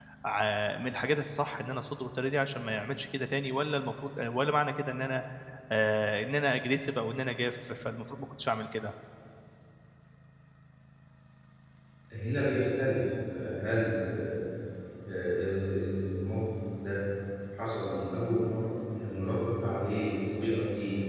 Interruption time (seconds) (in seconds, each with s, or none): none